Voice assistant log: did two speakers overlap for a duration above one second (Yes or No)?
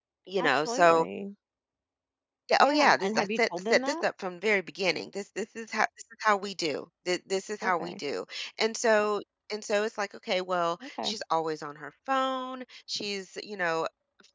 Yes